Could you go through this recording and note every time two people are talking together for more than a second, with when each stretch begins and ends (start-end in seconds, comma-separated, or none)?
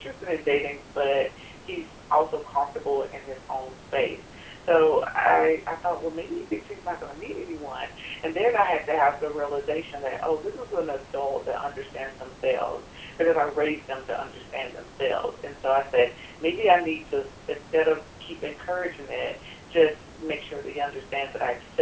none